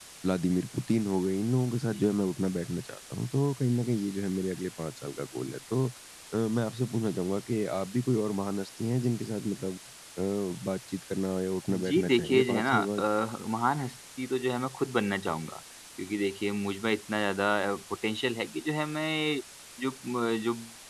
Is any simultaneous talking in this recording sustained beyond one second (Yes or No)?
Yes